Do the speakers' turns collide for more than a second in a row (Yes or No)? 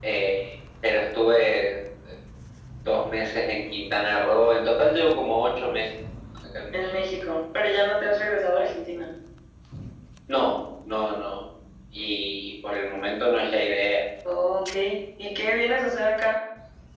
No